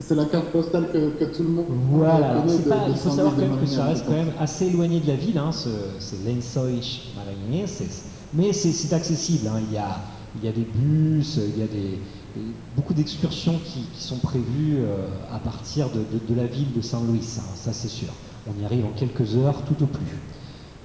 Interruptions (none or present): present